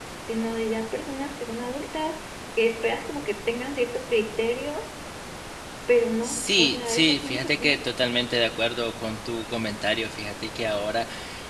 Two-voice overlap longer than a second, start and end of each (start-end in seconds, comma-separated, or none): 6.2-7.8